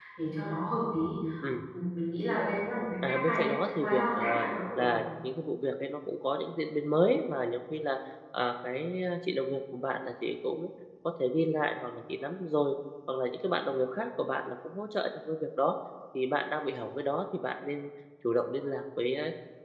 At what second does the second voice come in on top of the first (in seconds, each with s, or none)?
3.0 s